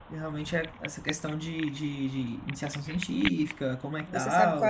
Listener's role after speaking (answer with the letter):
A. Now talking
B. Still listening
A